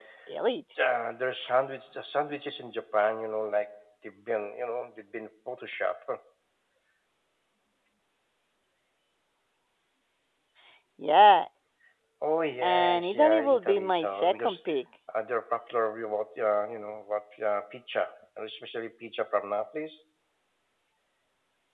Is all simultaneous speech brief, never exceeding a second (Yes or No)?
No